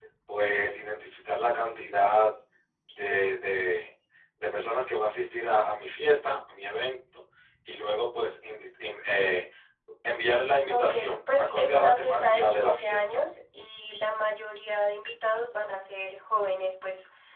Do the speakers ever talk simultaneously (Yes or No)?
Yes